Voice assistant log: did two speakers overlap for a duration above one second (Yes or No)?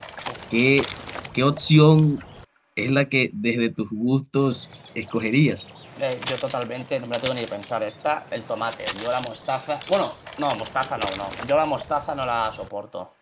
No